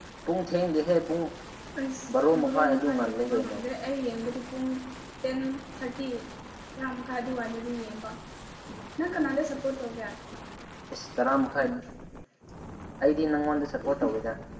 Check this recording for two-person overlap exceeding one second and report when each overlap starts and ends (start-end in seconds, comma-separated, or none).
2.3-3.6